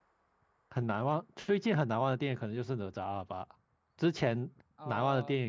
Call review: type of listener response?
listening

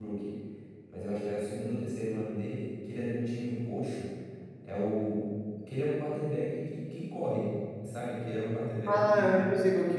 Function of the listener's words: taking over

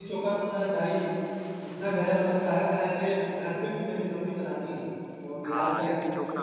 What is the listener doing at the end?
taking over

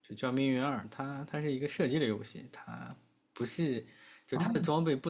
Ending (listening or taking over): listening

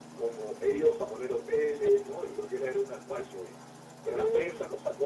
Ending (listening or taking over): listening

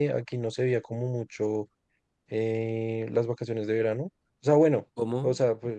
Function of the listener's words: listening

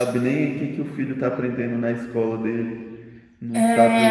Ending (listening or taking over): taking over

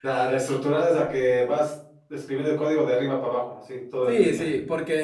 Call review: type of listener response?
taking over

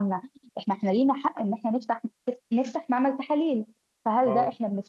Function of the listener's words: listening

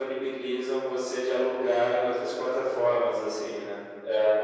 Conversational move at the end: listening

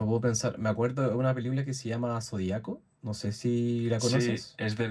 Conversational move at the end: taking over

